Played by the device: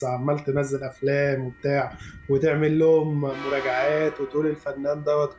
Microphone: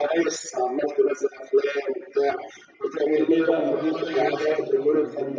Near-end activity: present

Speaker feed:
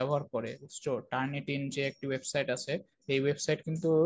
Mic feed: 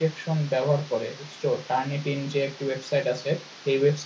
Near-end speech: none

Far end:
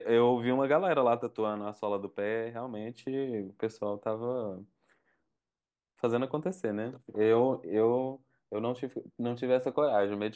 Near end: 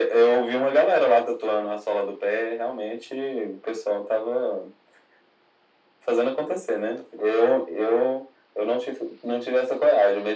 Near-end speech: none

